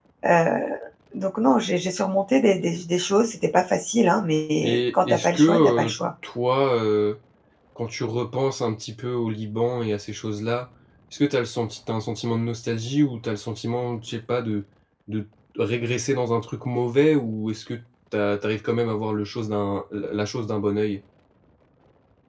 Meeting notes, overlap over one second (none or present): present